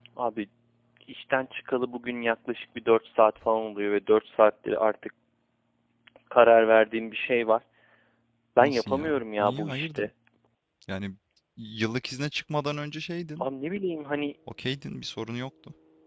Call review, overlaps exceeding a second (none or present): present